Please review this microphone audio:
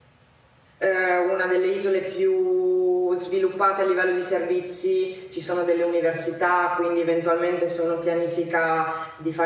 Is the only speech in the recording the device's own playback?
No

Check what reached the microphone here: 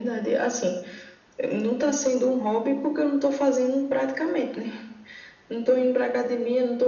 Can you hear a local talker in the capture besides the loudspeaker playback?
No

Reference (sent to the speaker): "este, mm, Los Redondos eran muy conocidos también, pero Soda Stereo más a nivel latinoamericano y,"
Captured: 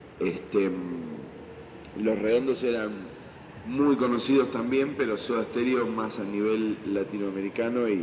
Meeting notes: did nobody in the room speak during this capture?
Yes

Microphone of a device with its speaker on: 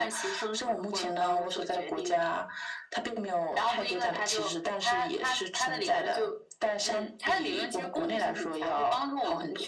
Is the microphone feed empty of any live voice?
Yes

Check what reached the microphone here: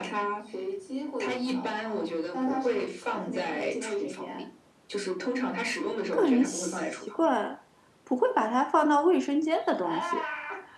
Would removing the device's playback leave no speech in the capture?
No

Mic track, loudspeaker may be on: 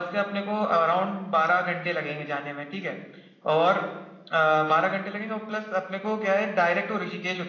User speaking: No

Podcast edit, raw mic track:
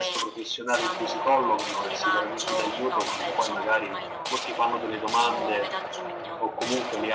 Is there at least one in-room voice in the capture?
No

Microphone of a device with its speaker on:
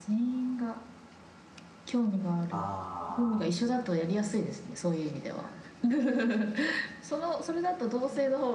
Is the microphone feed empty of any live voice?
No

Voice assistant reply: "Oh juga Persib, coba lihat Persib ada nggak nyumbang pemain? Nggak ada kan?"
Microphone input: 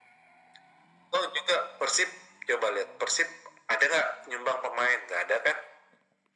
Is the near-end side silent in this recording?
Yes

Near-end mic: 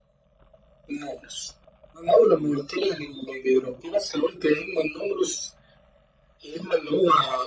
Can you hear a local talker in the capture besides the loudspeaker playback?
No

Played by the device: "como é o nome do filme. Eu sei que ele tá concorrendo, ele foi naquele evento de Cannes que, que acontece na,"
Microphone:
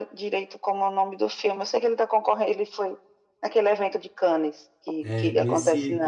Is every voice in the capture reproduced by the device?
No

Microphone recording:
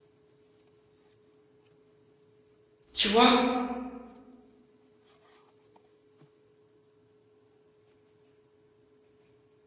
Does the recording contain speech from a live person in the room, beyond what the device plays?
Yes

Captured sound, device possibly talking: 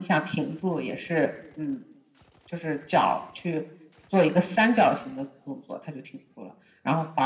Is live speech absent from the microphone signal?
Yes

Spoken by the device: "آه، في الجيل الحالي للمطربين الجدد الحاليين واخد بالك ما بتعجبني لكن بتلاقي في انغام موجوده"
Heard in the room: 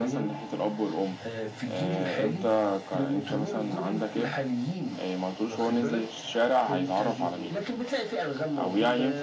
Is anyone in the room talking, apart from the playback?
Yes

